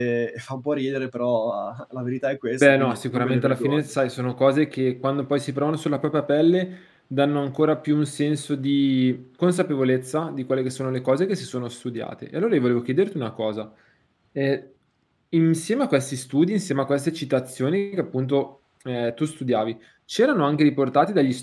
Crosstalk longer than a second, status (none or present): present